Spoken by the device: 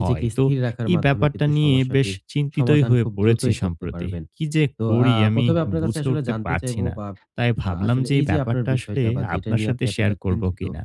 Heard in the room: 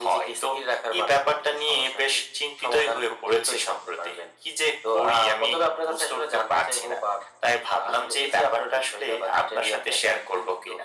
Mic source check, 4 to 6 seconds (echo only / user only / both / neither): echo only